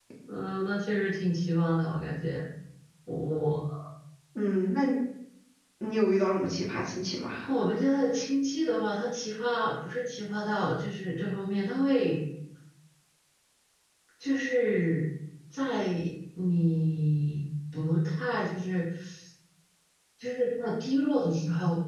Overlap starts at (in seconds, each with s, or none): none